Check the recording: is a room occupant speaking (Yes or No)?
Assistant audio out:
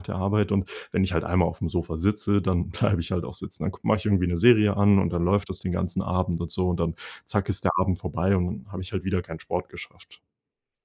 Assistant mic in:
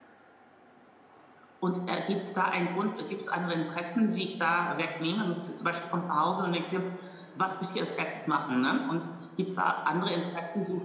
Yes